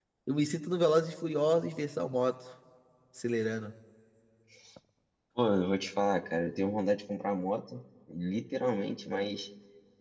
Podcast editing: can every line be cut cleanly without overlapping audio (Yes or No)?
Yes